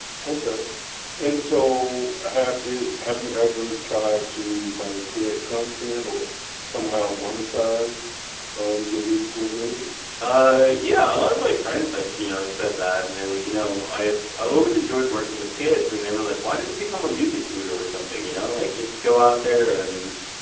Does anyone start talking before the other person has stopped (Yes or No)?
No